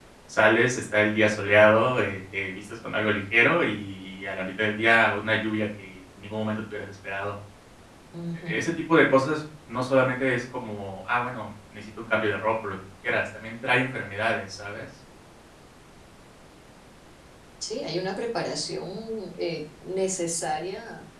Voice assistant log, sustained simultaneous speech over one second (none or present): none